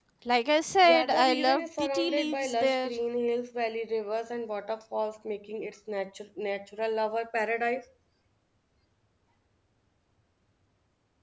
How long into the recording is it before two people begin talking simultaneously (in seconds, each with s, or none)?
0.8 s